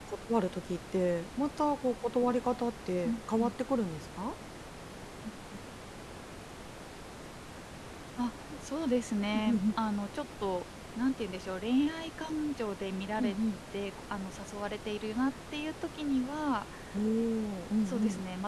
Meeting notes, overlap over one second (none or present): none